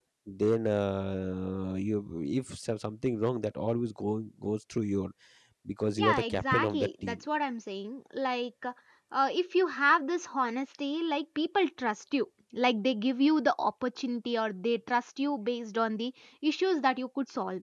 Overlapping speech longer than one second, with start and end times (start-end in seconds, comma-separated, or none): 6.0-7.2